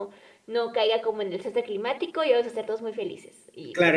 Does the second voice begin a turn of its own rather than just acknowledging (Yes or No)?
Yes